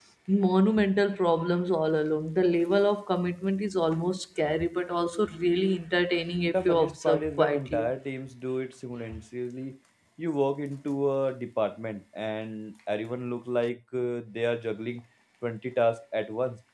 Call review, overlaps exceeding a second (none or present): present